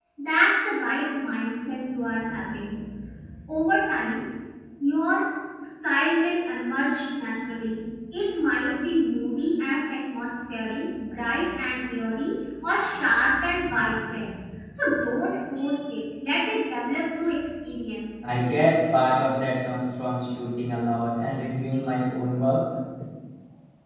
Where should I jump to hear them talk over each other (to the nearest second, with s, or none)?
none